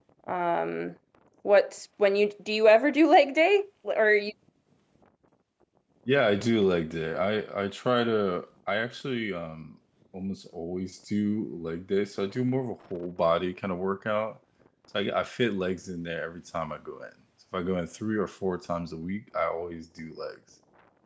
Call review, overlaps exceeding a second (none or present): none